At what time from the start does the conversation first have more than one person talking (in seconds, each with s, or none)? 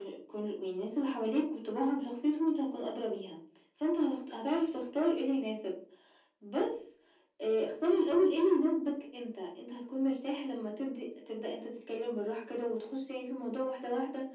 none